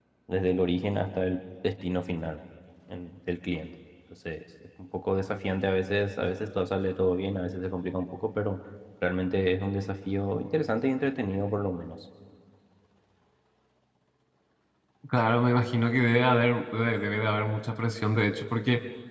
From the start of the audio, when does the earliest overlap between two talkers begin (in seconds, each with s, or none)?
none